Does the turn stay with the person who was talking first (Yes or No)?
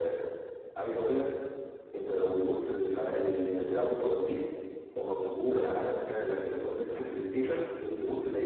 Yes